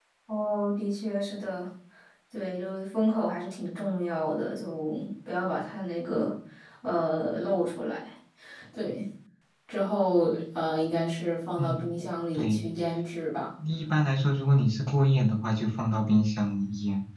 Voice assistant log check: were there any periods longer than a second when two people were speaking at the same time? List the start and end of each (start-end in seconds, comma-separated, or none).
none